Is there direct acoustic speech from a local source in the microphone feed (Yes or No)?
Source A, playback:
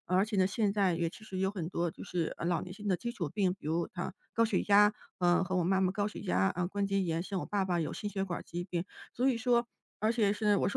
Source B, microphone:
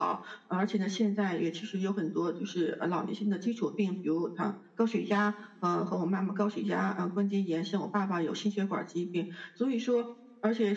No